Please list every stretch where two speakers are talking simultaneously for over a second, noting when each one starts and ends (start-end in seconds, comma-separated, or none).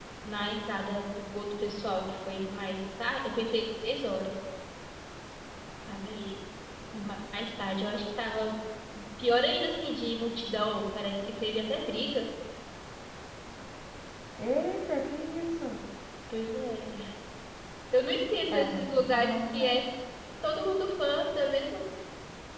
18.5-19.8